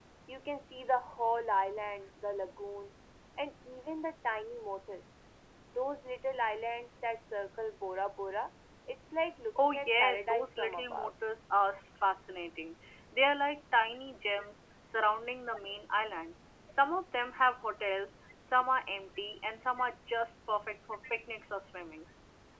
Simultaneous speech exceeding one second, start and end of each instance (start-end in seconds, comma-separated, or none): 9.6-11.1